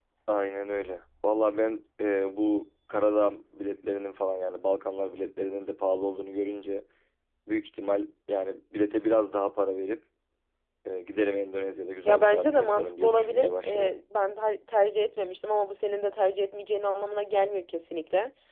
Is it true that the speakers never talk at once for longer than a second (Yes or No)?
No